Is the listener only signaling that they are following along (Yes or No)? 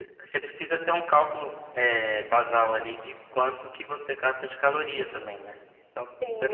No